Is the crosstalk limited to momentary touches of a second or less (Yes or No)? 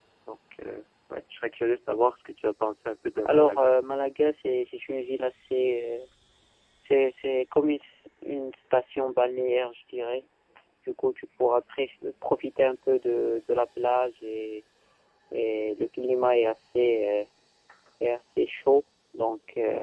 Yes